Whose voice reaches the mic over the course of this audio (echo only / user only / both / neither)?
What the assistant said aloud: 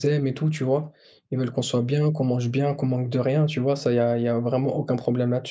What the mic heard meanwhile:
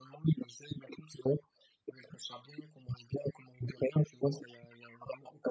echo only